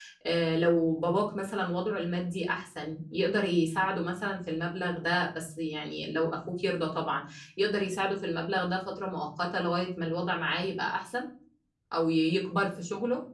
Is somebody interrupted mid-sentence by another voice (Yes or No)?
No